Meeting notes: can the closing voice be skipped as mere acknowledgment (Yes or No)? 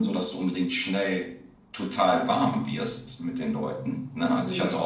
Yes